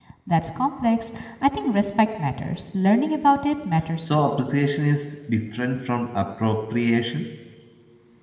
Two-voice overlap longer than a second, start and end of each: none

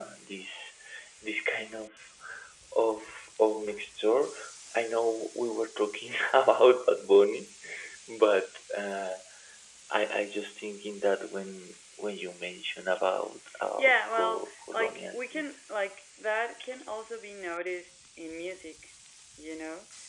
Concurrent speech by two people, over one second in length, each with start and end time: 13.8-15.5

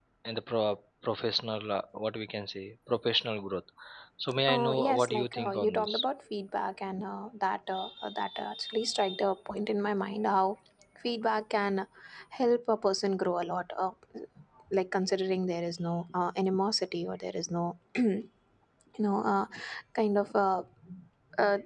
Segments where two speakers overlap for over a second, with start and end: 4.5-5.9

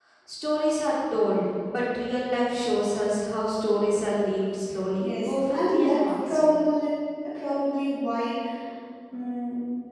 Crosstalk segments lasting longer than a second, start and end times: 5.0-6.4

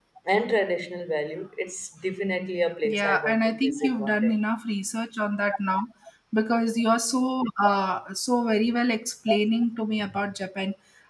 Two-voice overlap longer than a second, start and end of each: 2.8-4.3

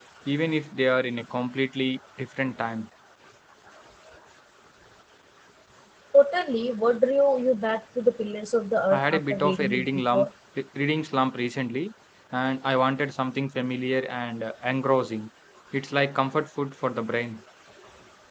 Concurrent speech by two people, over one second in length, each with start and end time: 8.9-10.3

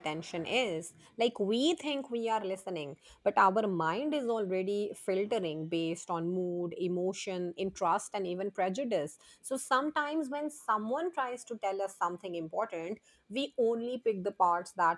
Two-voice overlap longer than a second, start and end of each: none

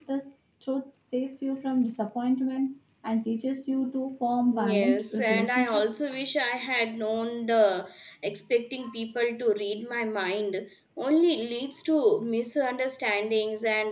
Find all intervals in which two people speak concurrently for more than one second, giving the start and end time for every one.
4.5-5.8

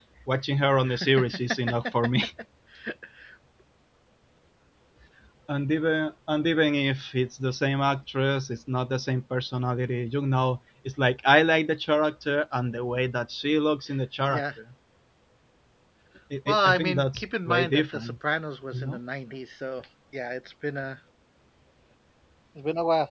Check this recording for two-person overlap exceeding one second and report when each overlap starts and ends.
16.5-18.1

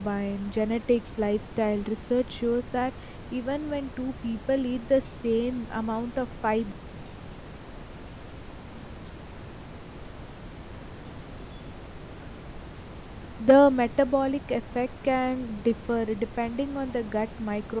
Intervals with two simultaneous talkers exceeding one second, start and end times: none

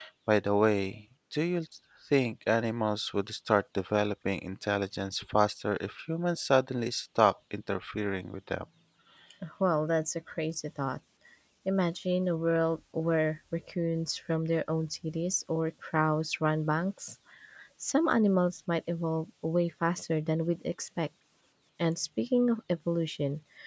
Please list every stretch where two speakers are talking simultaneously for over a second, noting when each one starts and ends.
none

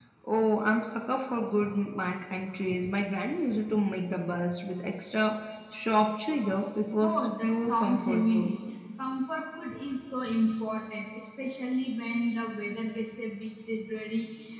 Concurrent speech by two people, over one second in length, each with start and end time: 7.0-8.5

